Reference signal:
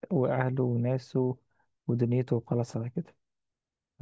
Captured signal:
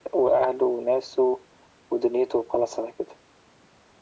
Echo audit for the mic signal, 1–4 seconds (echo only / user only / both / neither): echo only